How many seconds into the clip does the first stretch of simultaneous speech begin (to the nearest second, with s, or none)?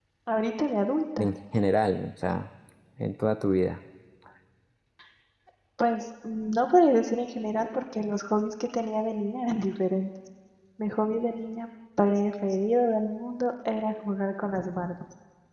none